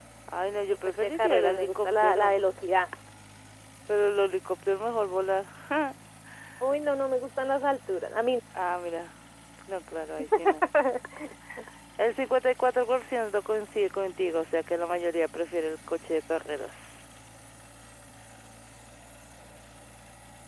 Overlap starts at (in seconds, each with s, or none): 0.8 s